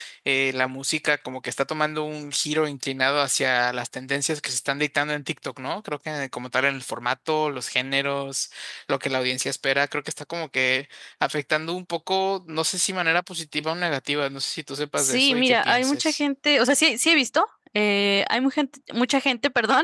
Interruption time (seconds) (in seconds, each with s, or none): 15.0 s